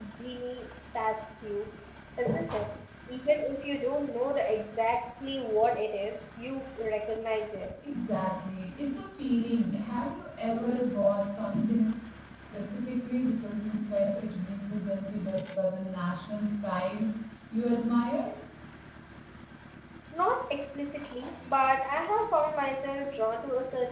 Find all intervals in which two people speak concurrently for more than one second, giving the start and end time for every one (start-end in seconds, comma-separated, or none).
none